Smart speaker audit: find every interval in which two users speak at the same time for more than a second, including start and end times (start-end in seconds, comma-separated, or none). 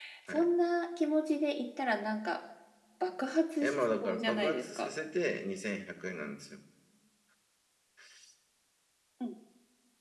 3.6-4.9